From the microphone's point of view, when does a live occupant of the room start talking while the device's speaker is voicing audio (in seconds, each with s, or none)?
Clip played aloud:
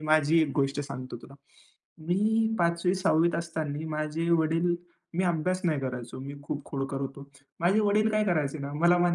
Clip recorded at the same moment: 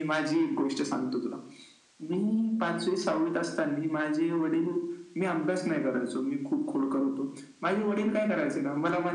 none